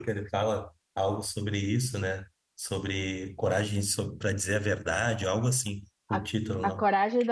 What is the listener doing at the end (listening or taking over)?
taking over